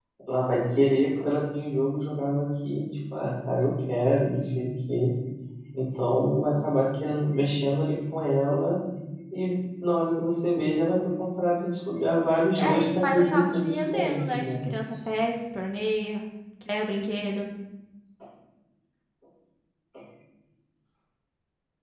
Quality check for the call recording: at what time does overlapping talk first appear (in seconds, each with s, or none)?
12.6 s